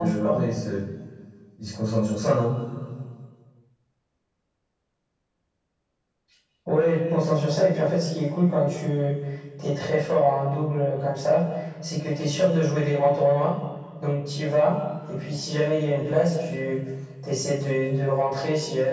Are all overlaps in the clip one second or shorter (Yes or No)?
Yes